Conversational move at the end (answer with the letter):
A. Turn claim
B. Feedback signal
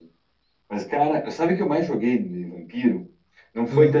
B